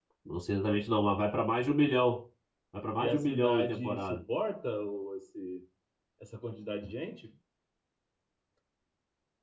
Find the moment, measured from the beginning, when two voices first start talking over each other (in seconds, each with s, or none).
3.0 s